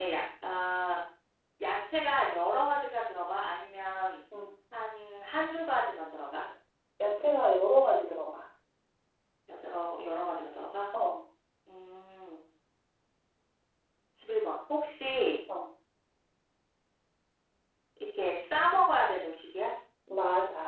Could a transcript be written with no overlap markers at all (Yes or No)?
Yes